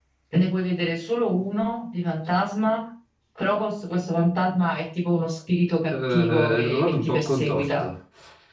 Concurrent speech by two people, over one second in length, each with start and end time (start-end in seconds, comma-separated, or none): 5.9-7.9